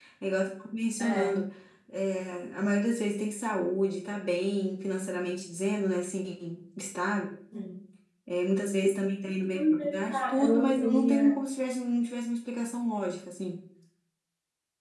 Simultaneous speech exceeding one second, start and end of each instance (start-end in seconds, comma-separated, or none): 9.5-11.4